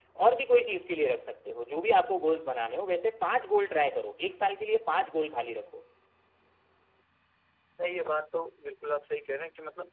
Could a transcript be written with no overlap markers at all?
Yes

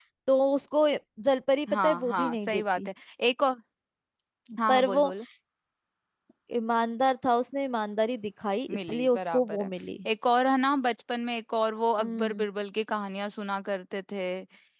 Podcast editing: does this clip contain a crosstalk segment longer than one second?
Yes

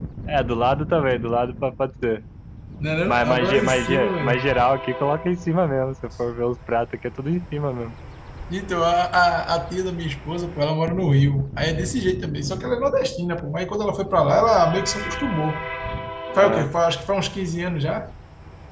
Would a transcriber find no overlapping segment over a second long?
No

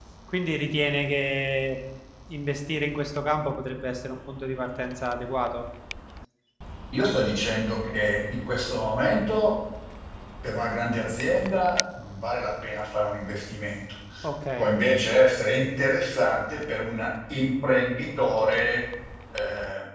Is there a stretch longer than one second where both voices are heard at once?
No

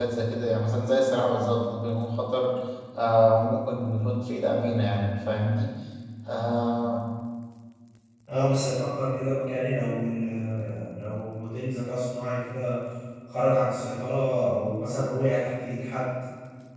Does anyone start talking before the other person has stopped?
No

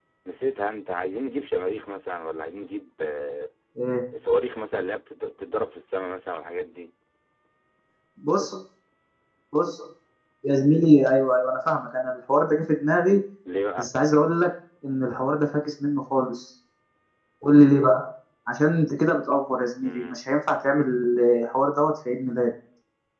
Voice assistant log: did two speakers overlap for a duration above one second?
No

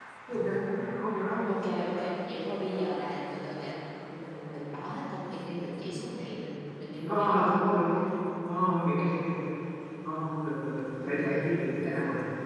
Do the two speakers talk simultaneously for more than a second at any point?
No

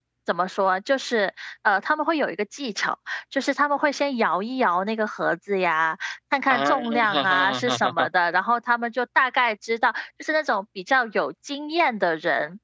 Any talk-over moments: Yes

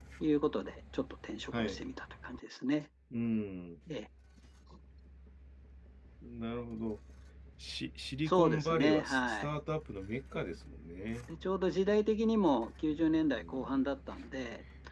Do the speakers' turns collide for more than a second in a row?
Yes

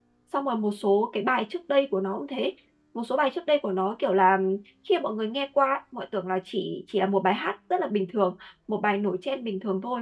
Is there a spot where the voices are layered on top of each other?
No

